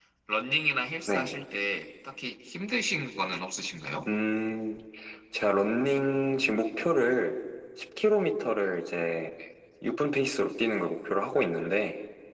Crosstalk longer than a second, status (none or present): none